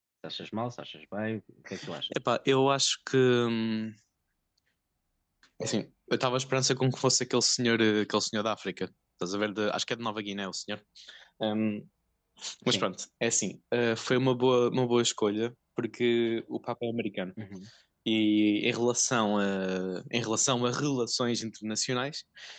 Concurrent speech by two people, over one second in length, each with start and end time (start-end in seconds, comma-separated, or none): none